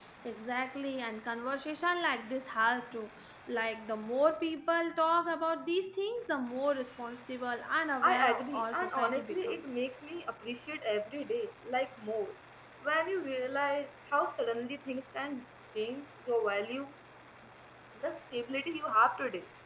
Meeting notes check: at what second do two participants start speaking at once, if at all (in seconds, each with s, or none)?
8.0 s